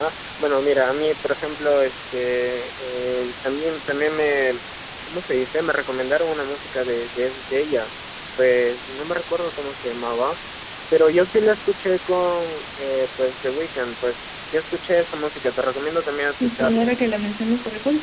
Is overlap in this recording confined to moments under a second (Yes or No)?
Yes